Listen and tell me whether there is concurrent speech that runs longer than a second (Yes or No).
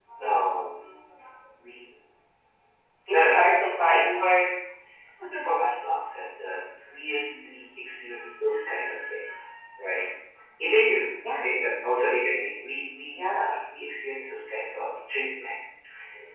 Yes